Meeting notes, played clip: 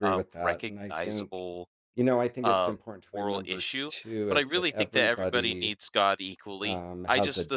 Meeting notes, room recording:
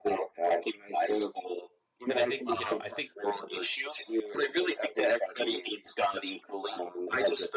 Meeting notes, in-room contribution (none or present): present